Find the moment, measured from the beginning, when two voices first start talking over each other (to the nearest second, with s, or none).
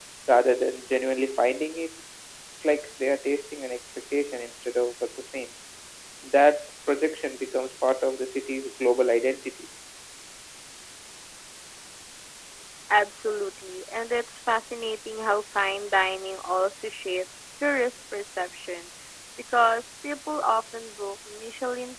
none